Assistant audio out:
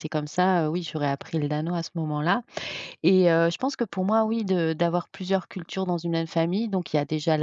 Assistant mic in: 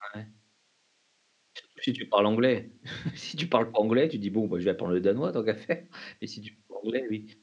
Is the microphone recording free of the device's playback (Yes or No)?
Yes